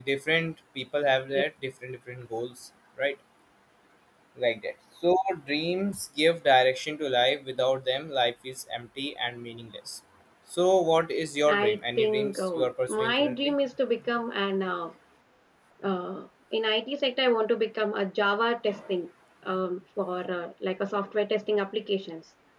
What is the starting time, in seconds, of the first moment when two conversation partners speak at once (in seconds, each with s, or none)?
11.5 s